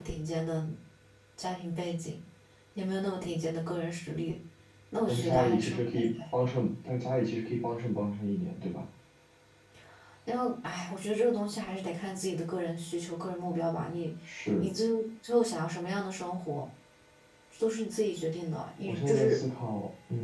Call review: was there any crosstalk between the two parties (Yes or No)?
Yes